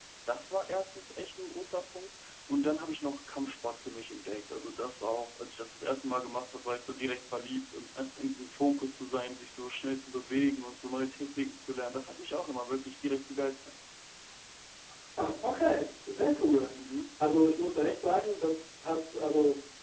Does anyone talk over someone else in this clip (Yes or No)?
No